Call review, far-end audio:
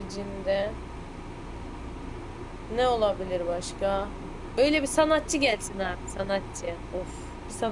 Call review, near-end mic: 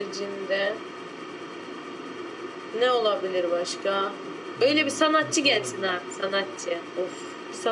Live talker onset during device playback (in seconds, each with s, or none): 4.5 s